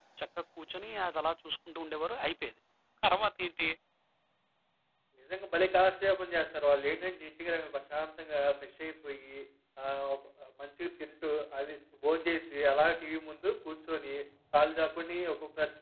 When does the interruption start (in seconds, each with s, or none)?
none